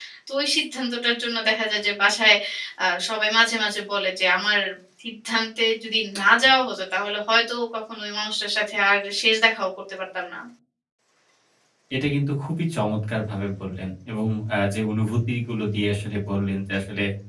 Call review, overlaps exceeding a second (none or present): none